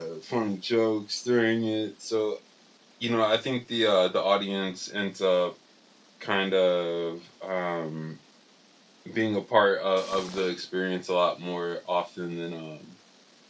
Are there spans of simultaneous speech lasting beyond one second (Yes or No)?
No